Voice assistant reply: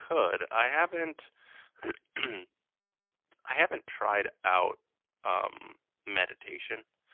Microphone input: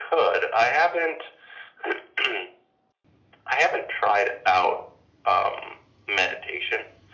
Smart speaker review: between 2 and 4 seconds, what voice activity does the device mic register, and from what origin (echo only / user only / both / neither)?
echo only